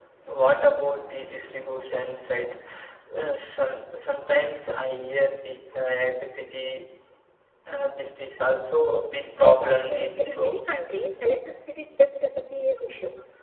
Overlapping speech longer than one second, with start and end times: 9.4-10.6

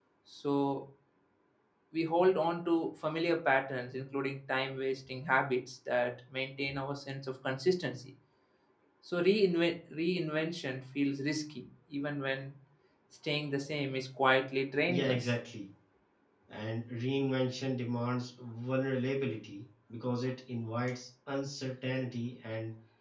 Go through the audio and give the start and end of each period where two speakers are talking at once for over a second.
none

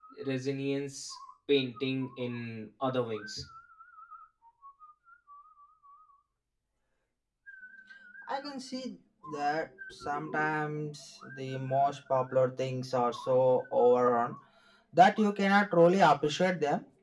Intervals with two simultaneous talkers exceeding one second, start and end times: none

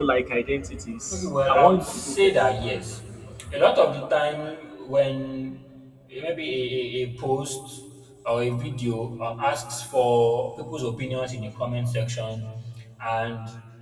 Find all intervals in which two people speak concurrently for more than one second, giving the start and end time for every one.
1.1-2.3

